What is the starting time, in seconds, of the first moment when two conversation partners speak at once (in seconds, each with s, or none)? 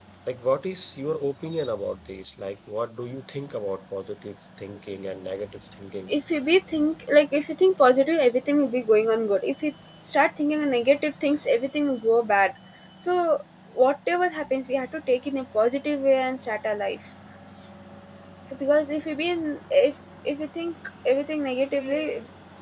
none